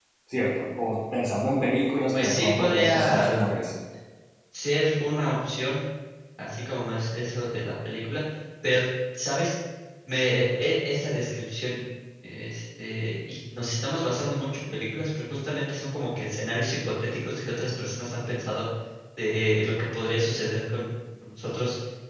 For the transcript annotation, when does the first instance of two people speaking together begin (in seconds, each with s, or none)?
2.1 s